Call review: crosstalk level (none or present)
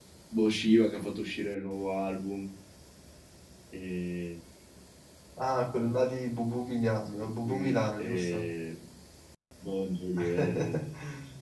present